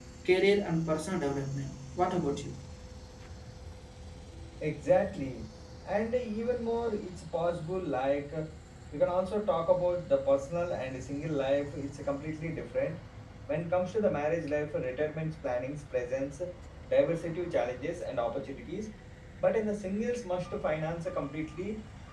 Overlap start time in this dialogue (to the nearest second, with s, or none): none